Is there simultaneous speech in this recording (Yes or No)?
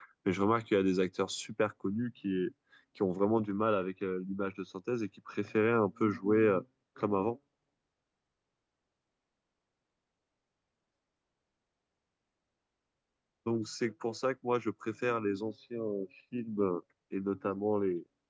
No